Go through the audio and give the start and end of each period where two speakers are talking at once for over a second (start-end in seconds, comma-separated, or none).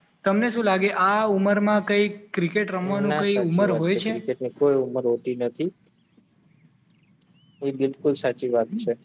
2.9-4.1